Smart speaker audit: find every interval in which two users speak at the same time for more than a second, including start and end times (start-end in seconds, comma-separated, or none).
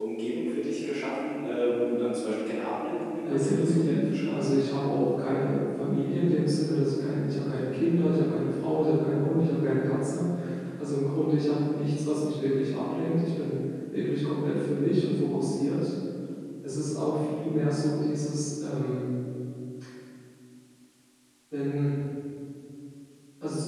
3.2-4.5